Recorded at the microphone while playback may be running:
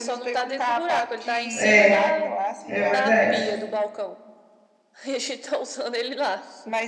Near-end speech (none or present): present